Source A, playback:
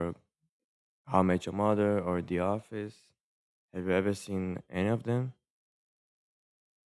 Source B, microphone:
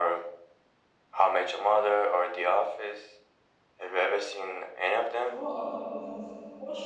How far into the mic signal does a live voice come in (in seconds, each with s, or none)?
5.2 s